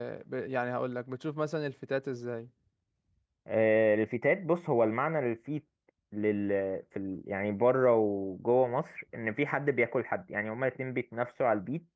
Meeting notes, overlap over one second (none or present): none